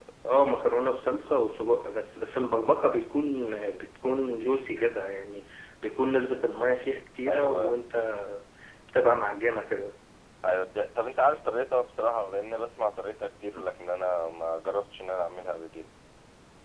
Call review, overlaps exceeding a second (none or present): none